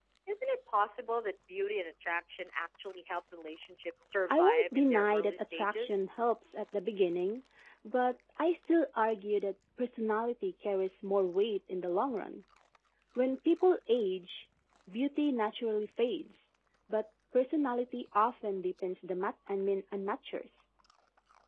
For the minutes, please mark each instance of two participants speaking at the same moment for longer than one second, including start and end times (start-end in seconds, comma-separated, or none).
4.3-6.1